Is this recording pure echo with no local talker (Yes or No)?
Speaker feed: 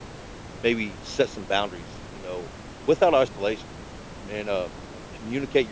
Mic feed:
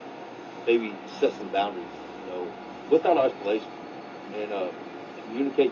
Yes